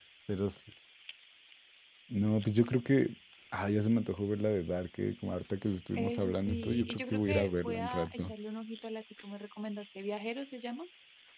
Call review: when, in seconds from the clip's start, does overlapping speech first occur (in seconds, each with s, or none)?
6.0 s